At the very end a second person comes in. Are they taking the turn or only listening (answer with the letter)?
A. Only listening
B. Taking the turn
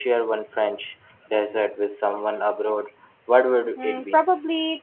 B